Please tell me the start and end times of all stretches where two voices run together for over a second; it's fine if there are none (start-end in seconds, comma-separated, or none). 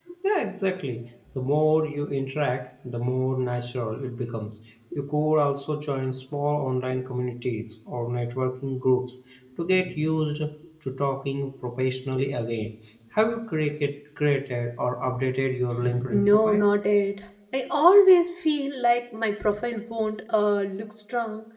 none